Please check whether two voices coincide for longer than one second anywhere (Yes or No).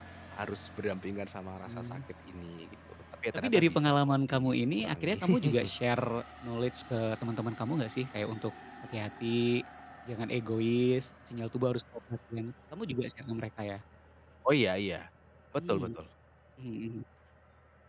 Yes